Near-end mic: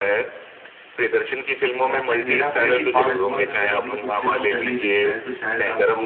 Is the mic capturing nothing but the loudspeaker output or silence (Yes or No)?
No